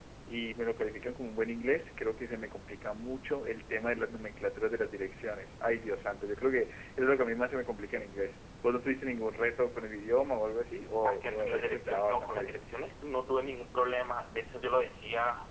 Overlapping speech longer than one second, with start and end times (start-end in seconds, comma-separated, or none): 11.1-12.6